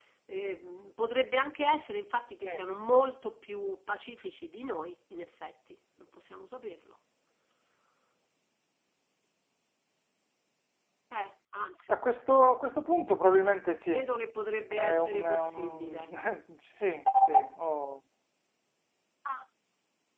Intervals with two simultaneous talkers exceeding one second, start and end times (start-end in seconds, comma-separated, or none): 14.7-16.1